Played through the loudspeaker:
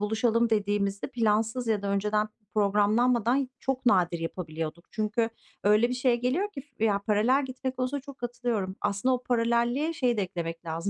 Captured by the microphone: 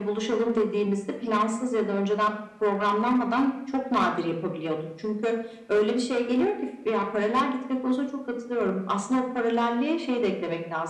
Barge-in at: none

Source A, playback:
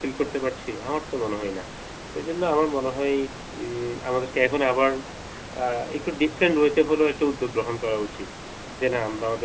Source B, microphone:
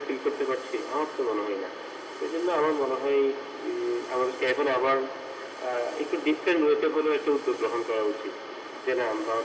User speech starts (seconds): none

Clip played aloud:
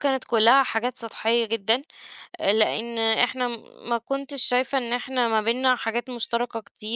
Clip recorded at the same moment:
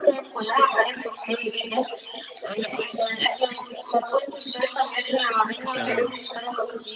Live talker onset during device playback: 5.7 s

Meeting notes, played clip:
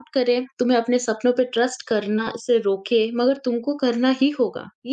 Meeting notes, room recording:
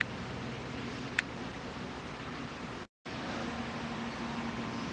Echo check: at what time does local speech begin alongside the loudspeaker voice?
none

